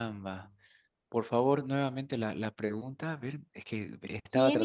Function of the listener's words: taking over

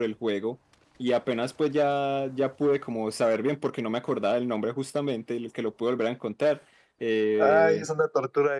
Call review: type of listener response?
taking over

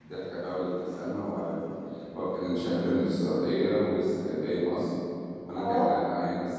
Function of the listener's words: listening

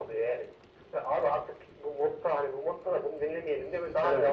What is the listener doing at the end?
listening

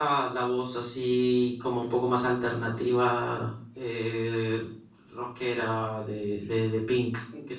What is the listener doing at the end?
taking over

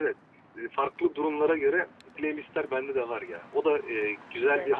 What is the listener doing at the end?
listening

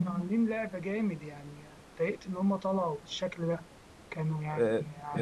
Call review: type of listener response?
taking over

